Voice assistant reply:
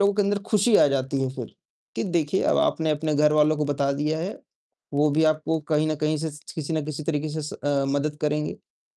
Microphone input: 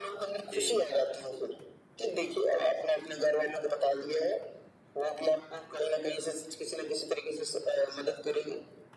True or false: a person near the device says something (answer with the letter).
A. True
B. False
A